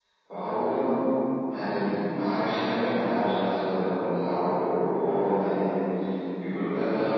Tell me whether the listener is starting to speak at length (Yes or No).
No